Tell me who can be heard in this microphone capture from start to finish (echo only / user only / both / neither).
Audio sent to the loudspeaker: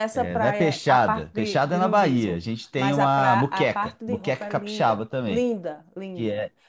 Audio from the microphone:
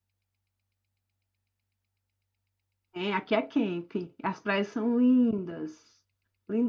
user only